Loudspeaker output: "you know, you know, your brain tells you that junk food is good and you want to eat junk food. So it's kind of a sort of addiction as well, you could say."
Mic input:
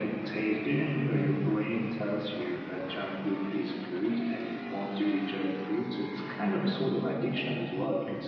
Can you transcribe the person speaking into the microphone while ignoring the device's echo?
none

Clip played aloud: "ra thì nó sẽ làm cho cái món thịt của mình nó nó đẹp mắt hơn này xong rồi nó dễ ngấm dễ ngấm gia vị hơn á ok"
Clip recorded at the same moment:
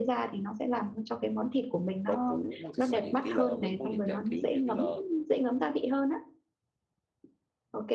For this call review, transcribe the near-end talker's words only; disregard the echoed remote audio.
rau củ thì sao vậy kỹ là mấy món dạng dạng kiểu ví dụ như là

